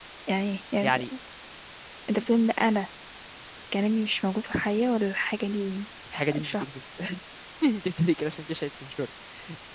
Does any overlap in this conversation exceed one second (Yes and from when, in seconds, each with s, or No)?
No